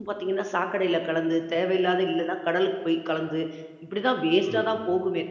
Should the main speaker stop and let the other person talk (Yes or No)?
No